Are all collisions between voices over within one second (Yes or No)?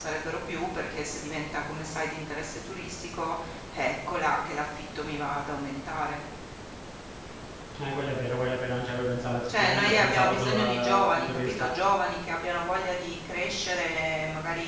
No